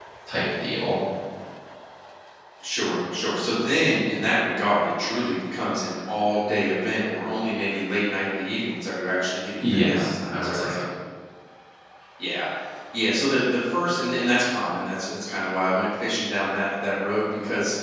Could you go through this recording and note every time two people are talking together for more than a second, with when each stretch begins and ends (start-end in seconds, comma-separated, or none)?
9.6-10.8